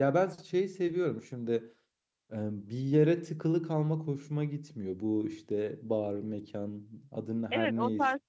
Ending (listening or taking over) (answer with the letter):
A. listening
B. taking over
B